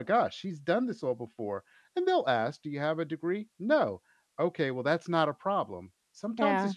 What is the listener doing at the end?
listening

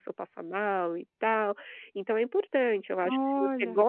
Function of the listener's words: listening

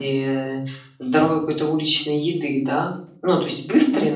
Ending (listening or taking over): listening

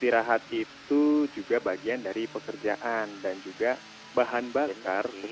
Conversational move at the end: listening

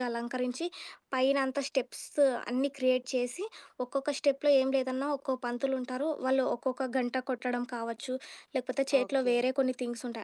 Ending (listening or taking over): listening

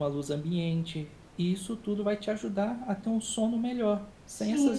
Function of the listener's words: taking over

